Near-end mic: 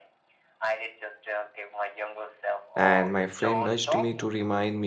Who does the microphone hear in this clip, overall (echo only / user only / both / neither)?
both